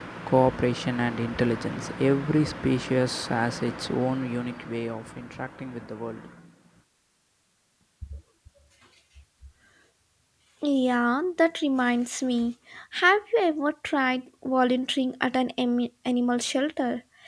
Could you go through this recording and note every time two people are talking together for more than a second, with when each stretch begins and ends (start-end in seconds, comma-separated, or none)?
none